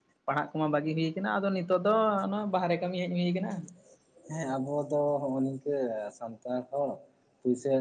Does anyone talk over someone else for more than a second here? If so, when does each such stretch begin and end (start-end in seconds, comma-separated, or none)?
none